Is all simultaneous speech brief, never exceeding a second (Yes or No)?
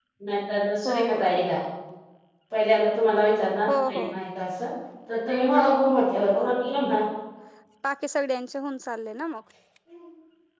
Yes